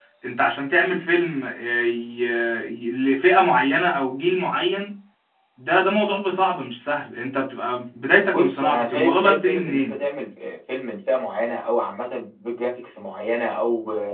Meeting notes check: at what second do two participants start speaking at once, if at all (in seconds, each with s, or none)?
8.3 s